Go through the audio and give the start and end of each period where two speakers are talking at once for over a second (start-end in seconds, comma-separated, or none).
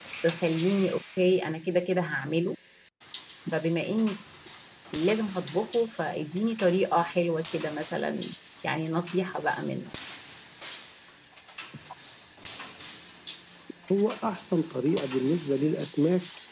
none